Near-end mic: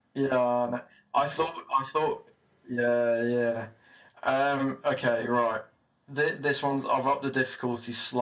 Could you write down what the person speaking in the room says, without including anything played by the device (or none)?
none